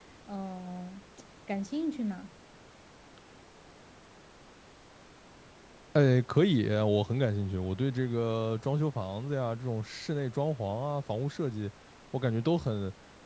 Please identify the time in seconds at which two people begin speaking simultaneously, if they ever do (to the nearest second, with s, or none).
none